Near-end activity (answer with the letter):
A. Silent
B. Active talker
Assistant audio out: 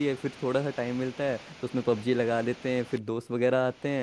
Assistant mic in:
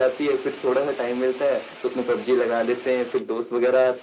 A